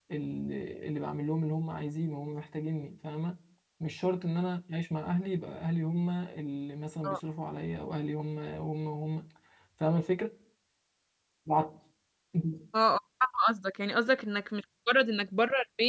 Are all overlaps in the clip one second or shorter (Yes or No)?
Yes